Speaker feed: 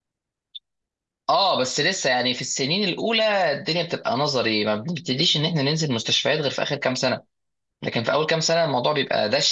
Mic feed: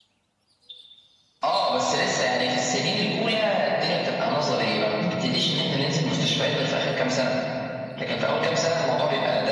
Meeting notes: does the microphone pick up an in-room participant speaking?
No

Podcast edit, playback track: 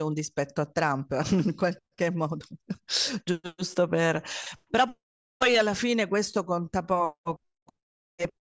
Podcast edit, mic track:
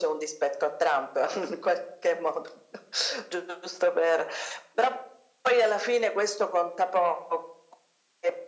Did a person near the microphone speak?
No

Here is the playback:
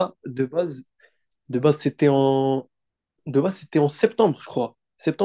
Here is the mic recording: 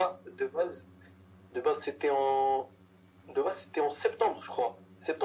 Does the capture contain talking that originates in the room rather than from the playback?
No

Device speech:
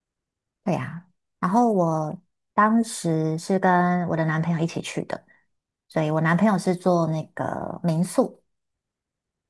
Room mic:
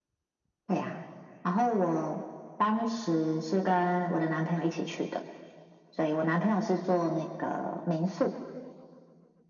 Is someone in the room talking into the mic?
No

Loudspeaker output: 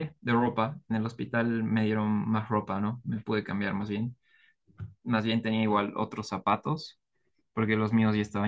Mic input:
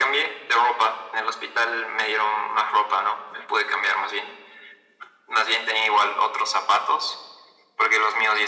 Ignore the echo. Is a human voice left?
No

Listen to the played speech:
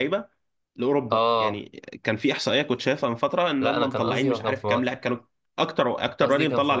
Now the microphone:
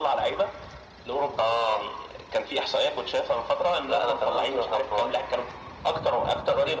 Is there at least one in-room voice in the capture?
No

